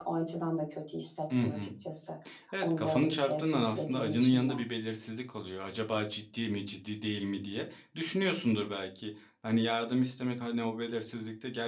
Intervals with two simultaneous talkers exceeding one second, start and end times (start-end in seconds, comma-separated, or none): 2.6-4.5